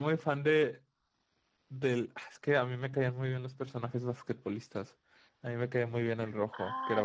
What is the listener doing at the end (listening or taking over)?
taking over